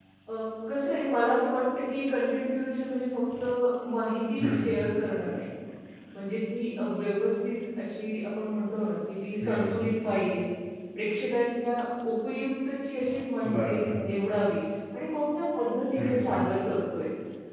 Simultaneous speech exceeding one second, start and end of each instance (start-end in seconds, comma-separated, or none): none